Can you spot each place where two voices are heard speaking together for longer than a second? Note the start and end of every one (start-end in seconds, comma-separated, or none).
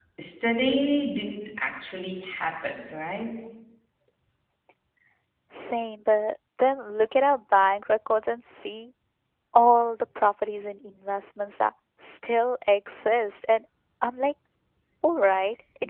none